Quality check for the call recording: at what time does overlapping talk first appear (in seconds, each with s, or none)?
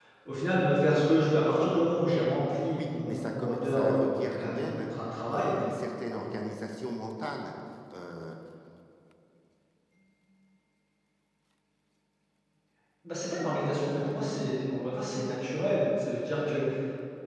2.8 s